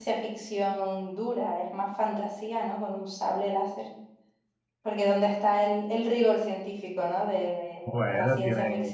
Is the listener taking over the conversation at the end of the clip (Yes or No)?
Yes